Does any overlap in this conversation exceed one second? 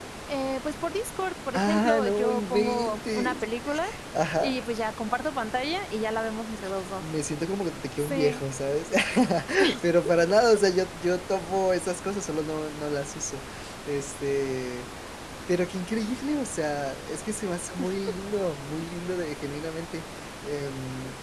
Yes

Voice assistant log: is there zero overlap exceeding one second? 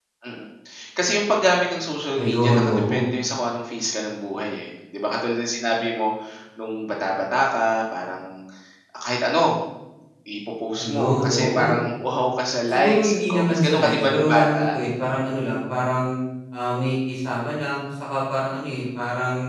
No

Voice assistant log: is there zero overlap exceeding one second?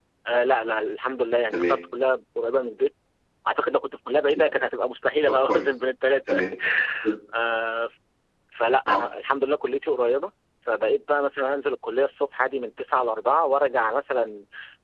Yes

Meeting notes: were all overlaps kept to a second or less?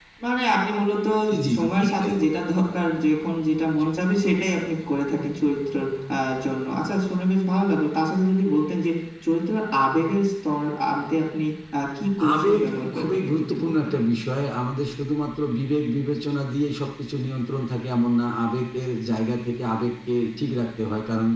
No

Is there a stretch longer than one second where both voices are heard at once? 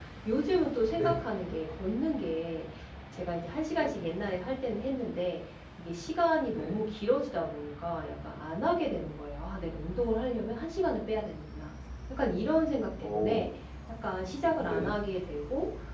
No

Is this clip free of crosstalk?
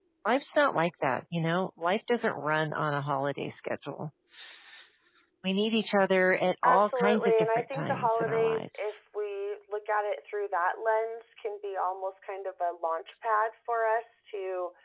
No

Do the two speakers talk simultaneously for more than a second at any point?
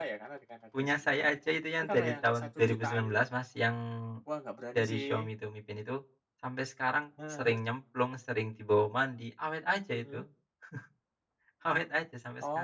Yes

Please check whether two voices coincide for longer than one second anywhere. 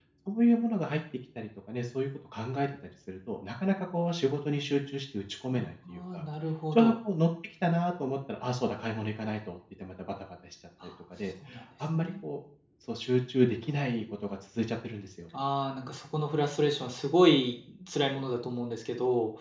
No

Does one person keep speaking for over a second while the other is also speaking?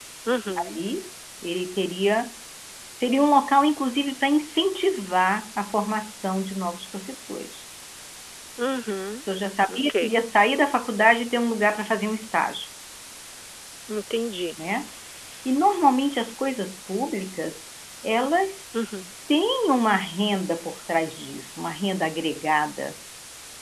No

